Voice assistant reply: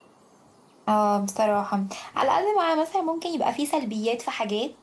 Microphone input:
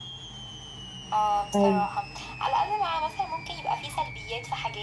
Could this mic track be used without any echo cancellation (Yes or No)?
No